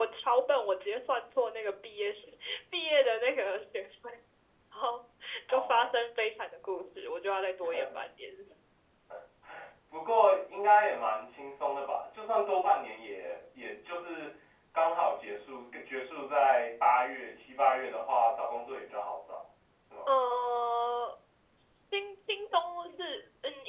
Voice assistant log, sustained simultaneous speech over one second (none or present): none